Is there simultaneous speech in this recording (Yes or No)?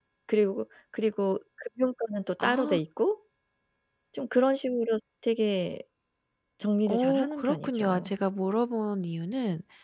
Yes